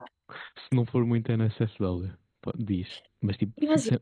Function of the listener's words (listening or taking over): listening